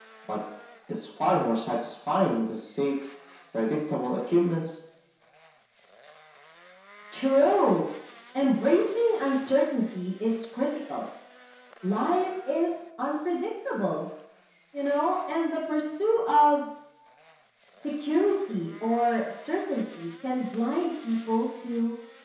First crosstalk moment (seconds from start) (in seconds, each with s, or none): none